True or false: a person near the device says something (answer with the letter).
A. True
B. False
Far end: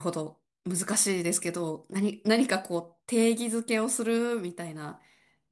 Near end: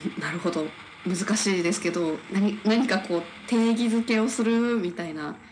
B